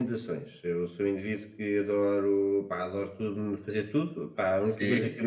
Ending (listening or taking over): listening